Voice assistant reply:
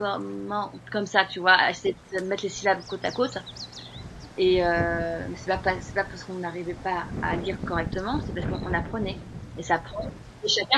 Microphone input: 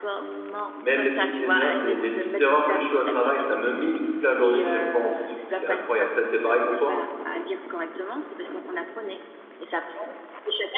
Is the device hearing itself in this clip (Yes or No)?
Yes